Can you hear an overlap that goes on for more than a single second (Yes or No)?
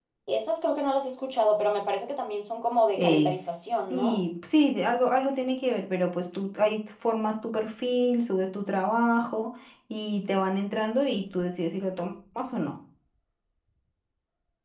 No